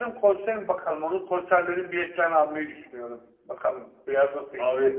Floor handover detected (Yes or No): Yes